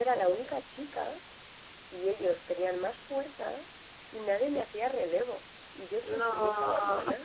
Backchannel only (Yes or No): Yes